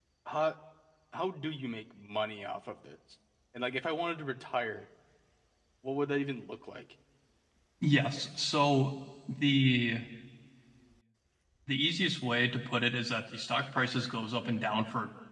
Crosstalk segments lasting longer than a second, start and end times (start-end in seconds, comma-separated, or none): none